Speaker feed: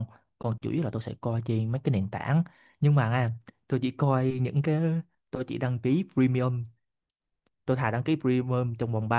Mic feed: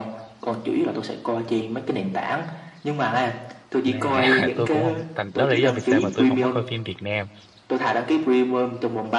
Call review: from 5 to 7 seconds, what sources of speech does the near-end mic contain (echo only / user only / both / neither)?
both